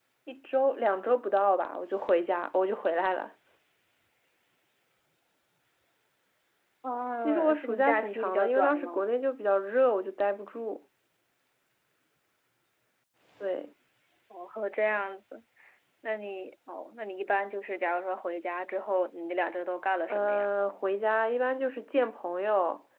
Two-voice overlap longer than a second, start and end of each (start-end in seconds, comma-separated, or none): 7.2-9.0